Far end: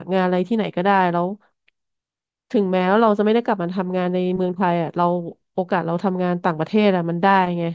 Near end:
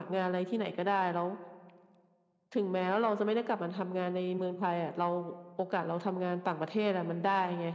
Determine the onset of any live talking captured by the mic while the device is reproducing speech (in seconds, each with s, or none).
none